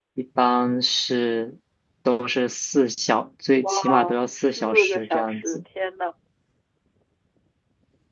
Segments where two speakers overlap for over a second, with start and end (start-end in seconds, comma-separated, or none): 4.3-5.6